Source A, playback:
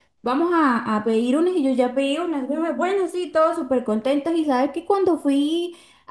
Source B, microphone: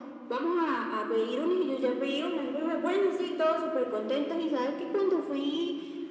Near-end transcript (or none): none